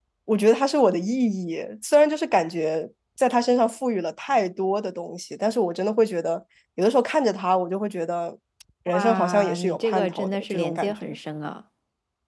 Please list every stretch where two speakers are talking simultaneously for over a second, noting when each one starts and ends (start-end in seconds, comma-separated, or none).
8.9-11.1